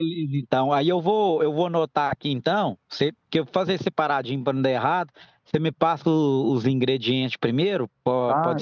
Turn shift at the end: Yes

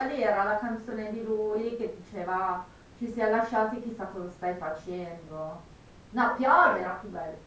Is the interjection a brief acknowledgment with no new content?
Yes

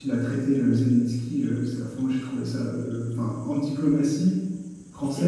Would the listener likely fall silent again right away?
Yes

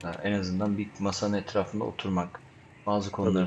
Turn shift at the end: No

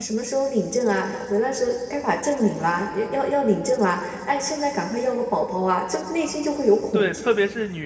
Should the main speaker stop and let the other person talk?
Yes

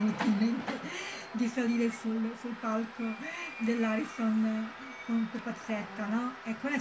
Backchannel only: Yes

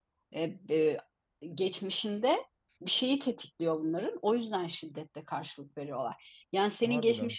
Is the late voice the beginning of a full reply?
No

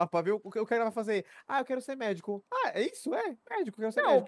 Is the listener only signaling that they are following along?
No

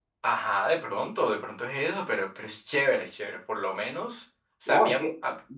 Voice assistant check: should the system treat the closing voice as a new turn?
Yes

